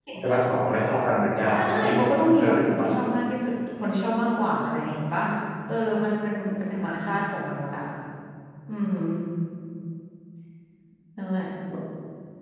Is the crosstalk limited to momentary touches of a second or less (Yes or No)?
No